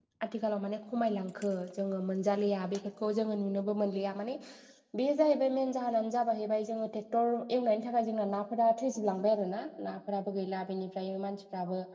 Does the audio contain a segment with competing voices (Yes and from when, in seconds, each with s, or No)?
No